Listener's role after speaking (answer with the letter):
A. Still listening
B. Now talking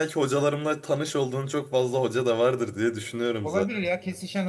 B